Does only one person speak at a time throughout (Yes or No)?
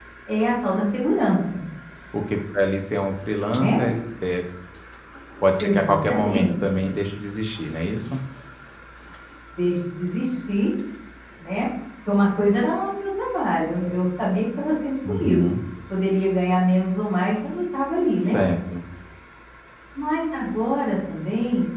No